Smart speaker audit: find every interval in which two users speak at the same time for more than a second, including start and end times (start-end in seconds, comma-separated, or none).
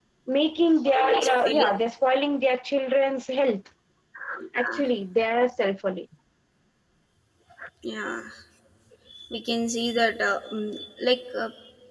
none